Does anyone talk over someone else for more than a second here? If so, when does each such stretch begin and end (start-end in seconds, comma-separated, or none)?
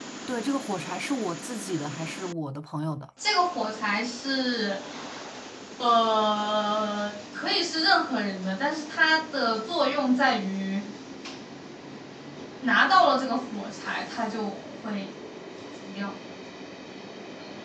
none